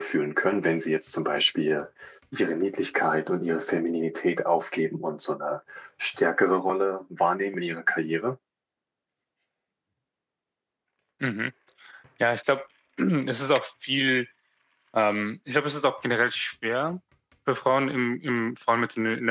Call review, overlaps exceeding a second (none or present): none